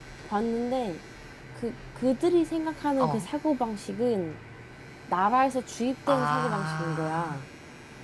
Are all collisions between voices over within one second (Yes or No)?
No